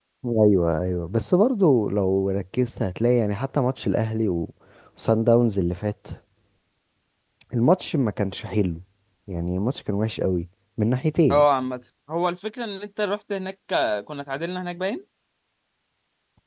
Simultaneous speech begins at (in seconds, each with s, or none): none